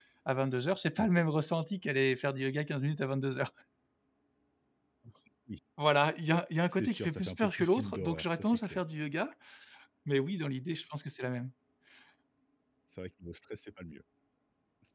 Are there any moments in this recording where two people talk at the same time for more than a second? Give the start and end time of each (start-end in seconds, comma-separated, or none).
6.7-8.8